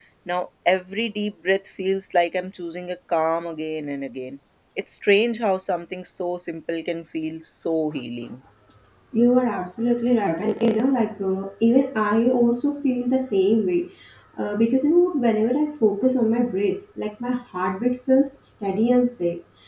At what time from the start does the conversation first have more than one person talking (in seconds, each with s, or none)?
none